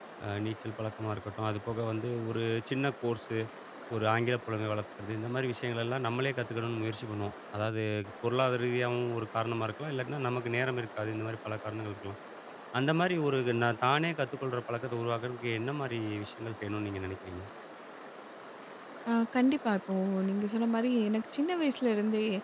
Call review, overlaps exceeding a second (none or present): none